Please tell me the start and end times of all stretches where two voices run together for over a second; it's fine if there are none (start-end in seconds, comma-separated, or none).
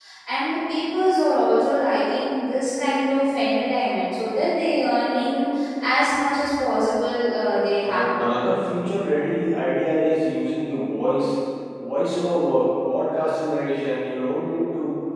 none